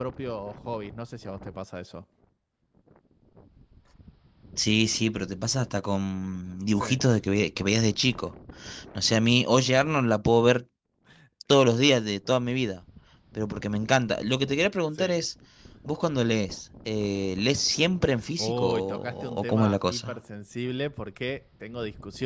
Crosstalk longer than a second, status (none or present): present